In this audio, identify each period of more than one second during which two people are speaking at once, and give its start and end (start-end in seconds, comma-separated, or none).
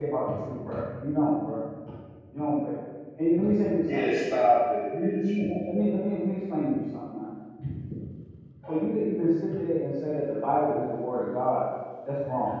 none